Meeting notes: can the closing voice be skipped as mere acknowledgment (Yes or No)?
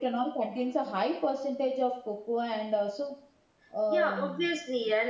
No